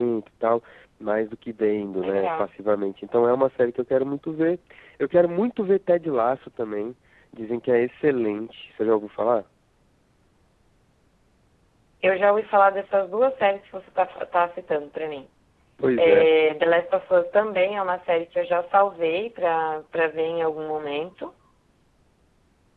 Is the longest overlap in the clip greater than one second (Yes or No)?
No